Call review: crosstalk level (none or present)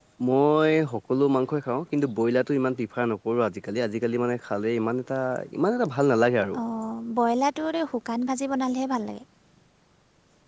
none